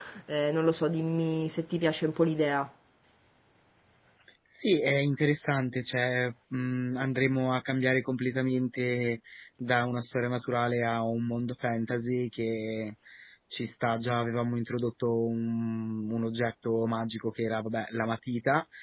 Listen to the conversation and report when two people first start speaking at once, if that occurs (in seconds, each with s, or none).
none